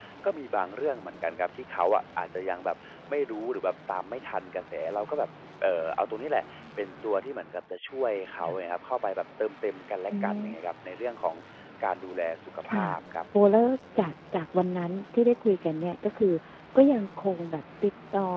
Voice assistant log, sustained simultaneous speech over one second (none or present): none